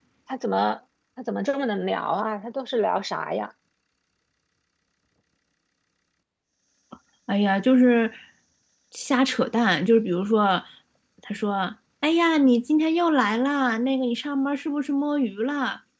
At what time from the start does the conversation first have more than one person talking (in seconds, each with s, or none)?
none